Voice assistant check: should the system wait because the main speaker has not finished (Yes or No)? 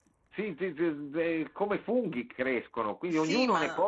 Yes